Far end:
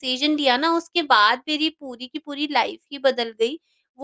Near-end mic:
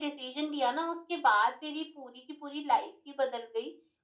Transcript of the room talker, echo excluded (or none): none